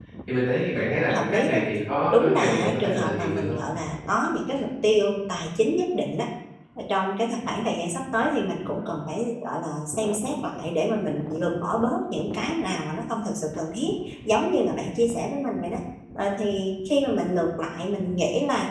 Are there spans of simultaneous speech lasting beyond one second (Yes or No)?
Yes